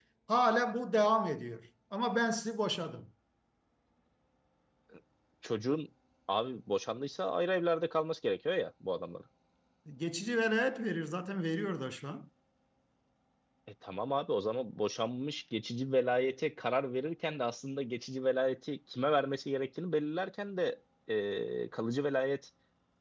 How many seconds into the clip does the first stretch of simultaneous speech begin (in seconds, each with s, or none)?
none